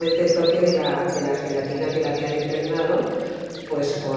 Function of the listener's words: listening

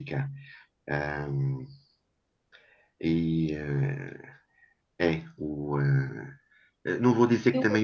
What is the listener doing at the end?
listening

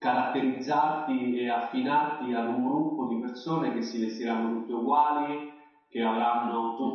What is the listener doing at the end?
listening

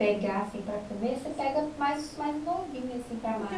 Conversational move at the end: taking over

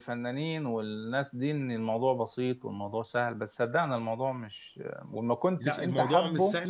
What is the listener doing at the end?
taking over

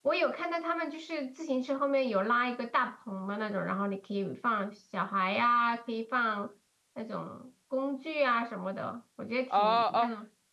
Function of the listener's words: taking over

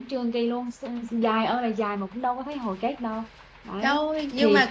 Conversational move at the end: taking over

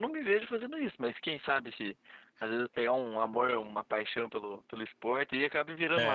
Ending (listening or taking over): taking over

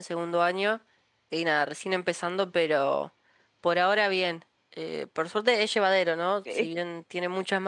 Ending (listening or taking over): listening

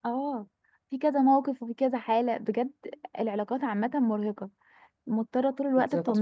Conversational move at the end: listening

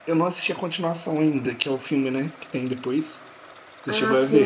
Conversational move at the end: taking over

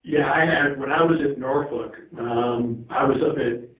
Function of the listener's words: listening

